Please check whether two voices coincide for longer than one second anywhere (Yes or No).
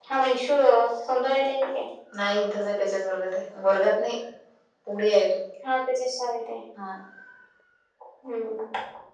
No